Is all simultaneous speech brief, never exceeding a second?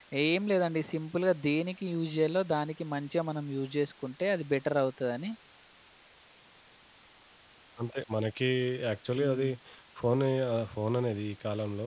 Yes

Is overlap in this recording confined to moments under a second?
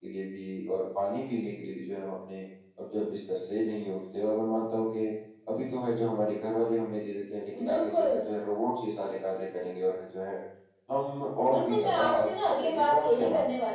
No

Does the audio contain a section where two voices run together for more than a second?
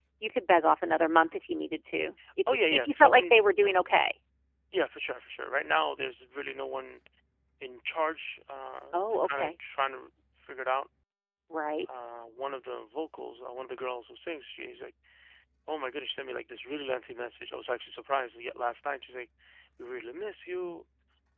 Yes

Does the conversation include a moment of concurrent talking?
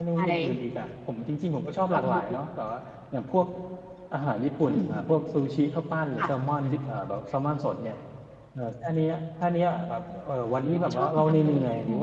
Yes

